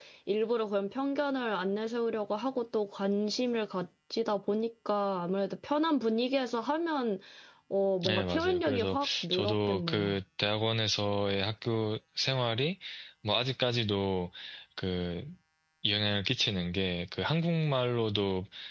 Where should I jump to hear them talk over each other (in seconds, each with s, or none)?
8.0 s